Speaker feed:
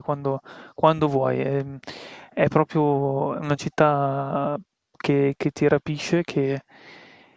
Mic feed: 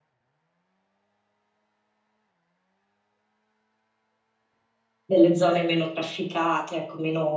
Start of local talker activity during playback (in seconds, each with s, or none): 5.0 s